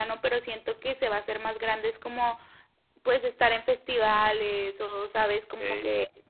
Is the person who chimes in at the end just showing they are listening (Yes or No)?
Yes